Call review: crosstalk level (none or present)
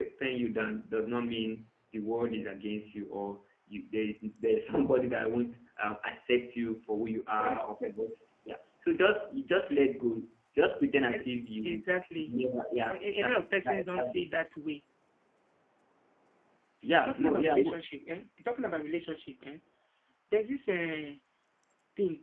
present